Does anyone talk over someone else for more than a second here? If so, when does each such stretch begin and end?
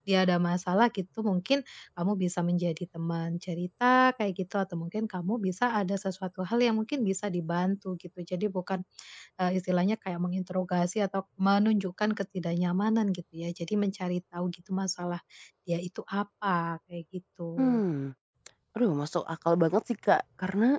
none

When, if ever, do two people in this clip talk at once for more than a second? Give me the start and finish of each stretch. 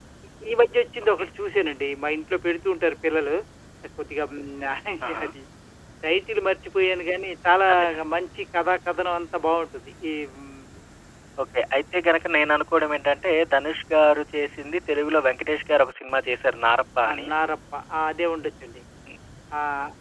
none

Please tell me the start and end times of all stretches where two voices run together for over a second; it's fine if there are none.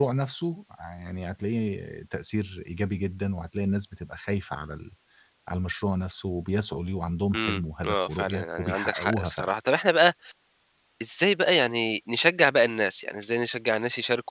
7.3-9.5

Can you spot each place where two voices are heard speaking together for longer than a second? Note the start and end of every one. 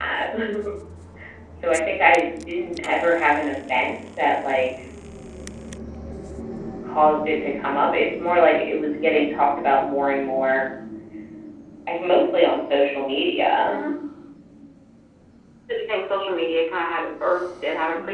none

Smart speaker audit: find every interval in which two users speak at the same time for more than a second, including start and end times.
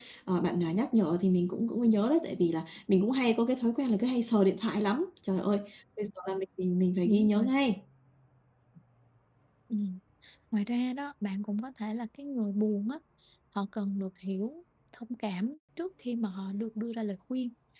none

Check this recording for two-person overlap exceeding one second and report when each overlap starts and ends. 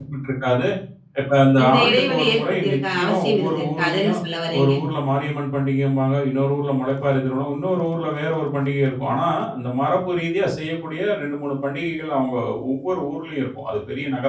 1.6-4.2

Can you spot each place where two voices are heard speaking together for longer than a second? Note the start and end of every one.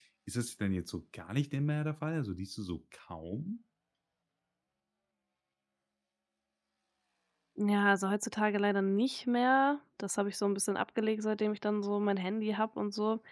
none

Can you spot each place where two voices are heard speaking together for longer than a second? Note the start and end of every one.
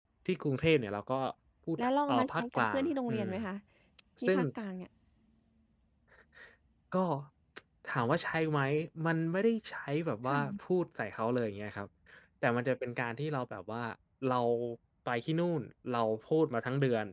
1.8-3.3

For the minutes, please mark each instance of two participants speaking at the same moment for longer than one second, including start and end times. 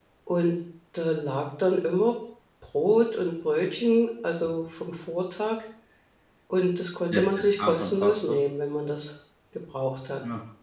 7.1-8.4

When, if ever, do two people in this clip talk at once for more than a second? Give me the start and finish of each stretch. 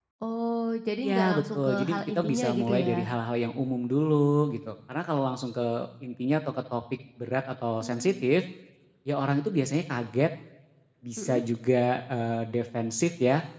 1.0-3.1

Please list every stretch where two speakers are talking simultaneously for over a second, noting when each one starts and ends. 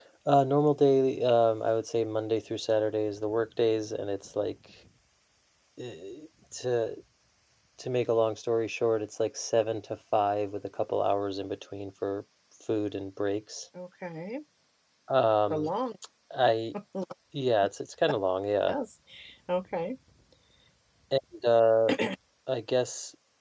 none

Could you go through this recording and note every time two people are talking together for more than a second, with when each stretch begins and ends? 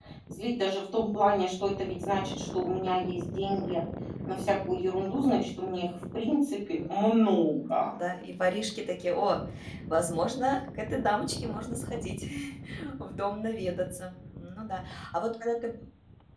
6.7-8.0

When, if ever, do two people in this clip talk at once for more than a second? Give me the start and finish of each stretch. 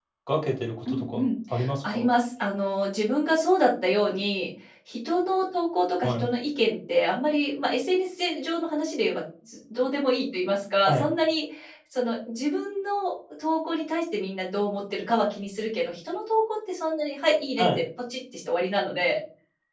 none

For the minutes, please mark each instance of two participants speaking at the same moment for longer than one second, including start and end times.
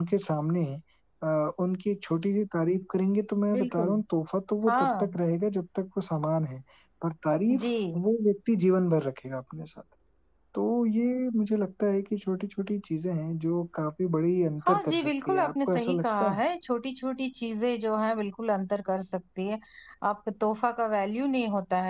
14.7-16.4

